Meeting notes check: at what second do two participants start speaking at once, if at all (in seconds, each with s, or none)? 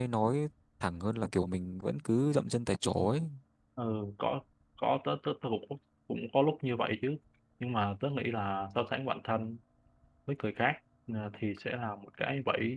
none